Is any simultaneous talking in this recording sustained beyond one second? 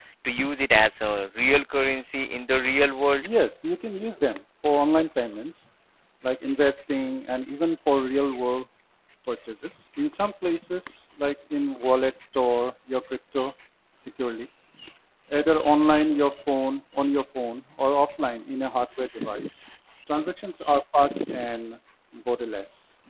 No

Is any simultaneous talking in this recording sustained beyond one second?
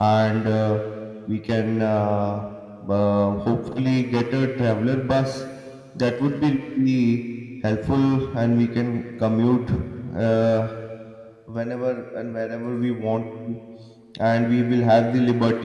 No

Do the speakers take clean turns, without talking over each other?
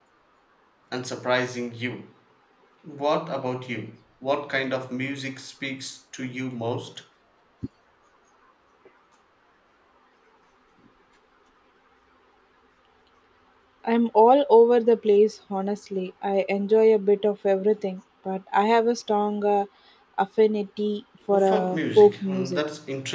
No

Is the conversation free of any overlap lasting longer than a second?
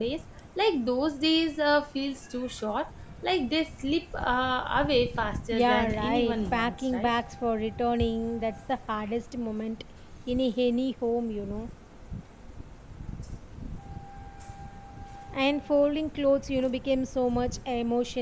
No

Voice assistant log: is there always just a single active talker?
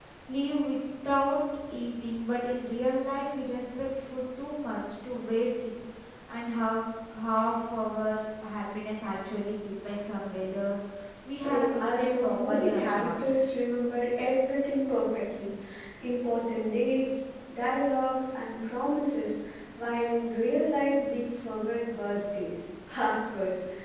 No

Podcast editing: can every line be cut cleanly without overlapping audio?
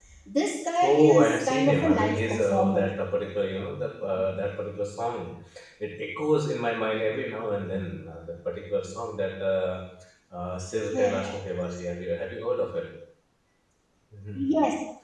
No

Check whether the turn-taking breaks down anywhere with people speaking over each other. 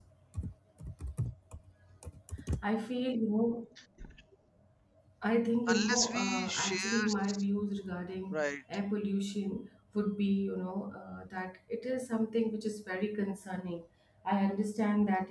Yes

